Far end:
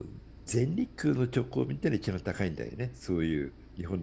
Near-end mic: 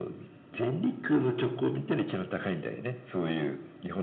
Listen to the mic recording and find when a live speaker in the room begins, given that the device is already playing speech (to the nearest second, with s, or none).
none